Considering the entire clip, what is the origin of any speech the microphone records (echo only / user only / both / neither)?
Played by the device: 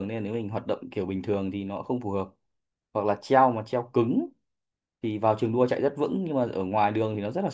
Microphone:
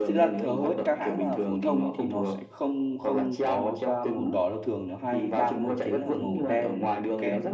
both